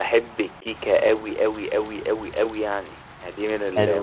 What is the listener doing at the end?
taking over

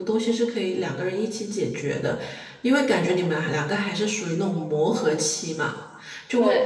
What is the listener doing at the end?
listening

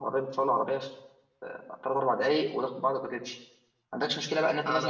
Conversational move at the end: listening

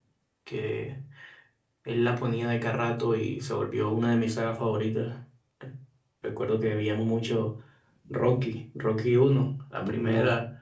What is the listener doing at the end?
listening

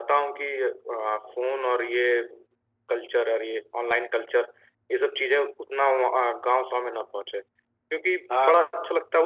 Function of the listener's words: listening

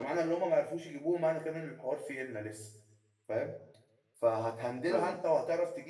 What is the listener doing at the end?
listening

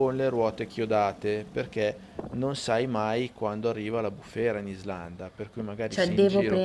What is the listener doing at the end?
taking over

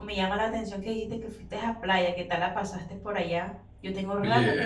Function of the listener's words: taking over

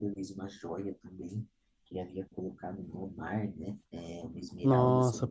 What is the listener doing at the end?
taking over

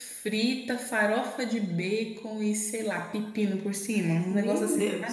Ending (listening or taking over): taking over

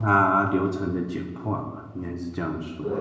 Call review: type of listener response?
taking over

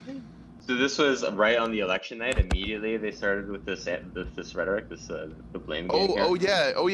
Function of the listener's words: taking over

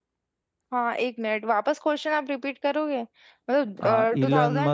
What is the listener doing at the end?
taking over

